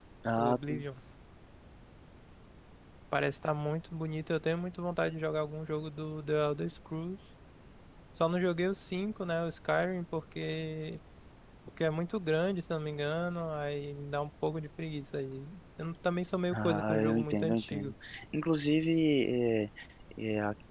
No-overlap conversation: No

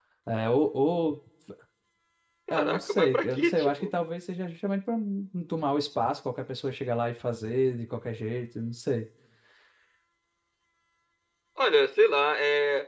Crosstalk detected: Yes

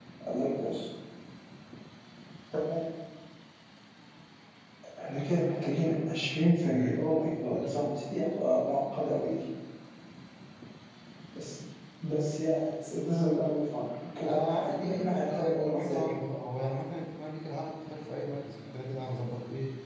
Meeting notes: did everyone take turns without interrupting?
No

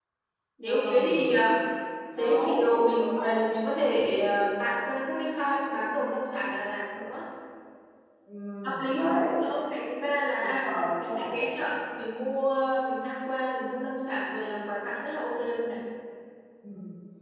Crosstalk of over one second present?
Yes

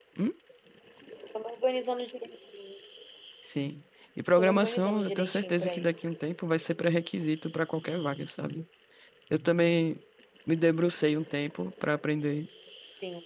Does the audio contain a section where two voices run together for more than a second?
Yes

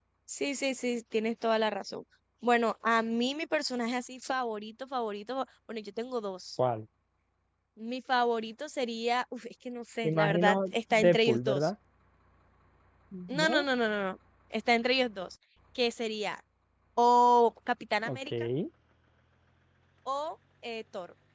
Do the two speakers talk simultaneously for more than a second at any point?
Yes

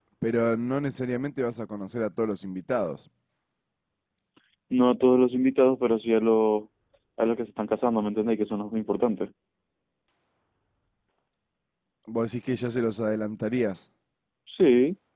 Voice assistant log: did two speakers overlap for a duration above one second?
No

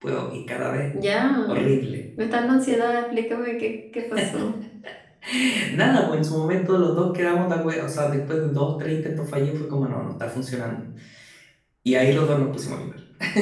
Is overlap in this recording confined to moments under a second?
Yes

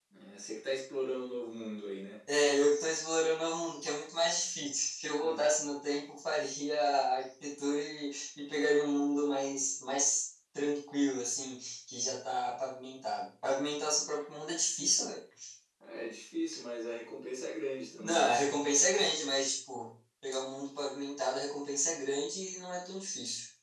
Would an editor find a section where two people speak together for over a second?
No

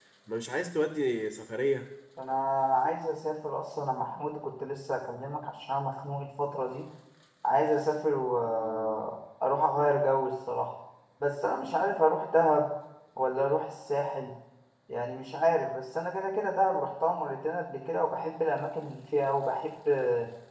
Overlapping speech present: No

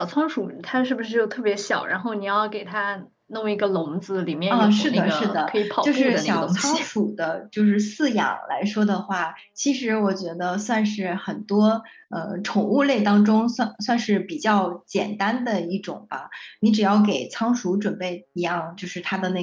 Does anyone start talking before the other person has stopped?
Yes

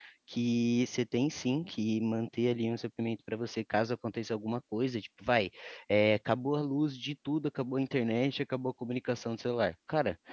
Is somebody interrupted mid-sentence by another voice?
No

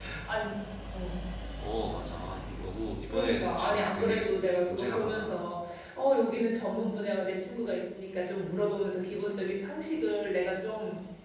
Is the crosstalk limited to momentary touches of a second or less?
No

